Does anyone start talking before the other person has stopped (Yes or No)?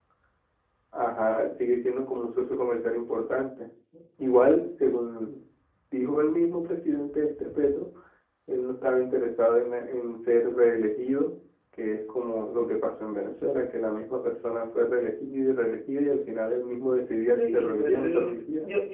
Yes